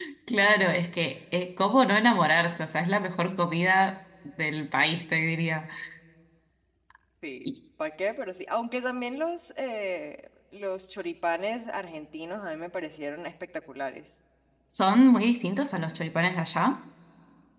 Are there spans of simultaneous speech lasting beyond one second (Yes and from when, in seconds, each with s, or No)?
No